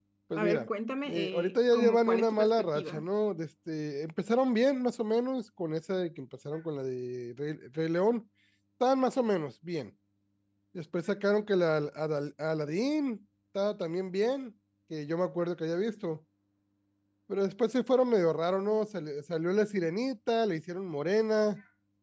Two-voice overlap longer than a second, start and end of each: 1.1-3.1

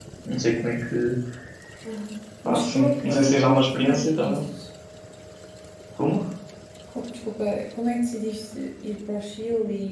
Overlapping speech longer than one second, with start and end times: 2.5-4.4

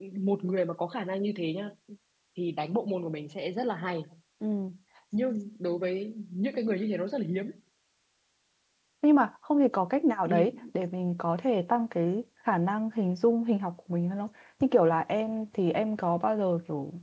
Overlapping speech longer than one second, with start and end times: none

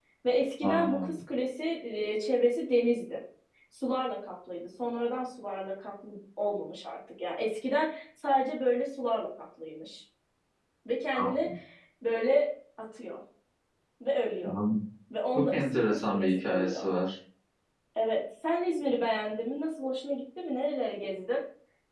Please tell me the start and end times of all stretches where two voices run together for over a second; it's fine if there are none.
15.3-16.9

